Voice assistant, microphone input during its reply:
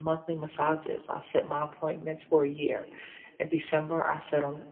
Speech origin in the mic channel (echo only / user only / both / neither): user only